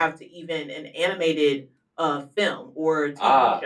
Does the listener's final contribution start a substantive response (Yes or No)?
Yes